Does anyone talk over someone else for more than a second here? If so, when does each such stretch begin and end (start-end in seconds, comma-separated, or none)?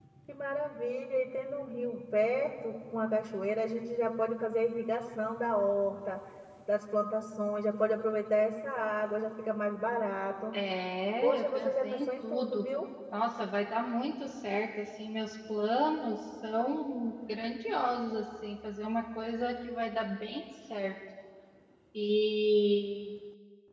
11.2-12.7